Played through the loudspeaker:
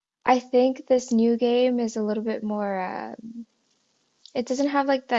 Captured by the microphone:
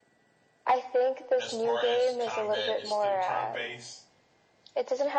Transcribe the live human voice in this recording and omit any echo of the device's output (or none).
as far as the combat, it's still turn-based.